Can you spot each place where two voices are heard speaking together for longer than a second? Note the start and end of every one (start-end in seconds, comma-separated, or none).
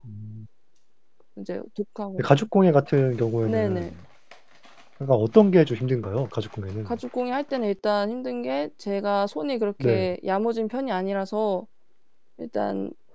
none